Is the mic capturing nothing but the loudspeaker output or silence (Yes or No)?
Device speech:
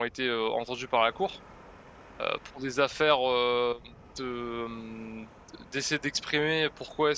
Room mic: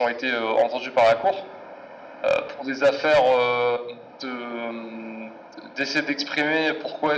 Yes